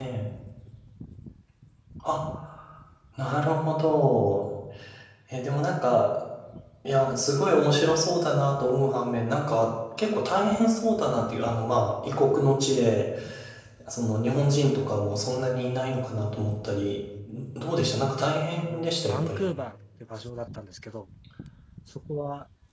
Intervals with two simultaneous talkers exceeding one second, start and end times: 18.2-19.4

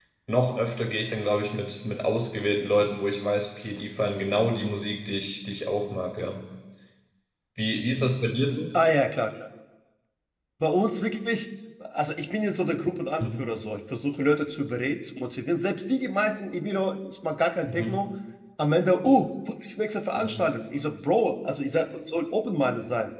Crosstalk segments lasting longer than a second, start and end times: none

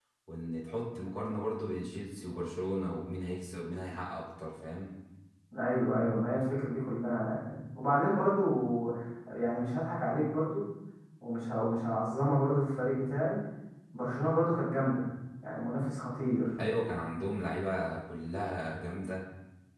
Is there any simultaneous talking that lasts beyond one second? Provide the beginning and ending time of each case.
none

